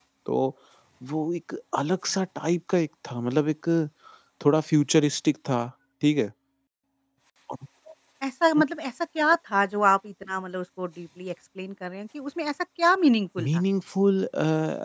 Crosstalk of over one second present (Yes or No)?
No